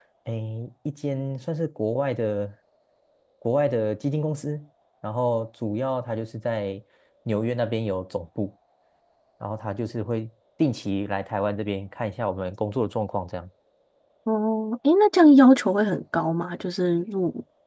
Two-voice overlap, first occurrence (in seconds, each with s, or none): none